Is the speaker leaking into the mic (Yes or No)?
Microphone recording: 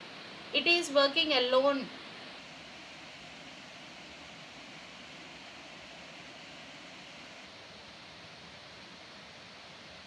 No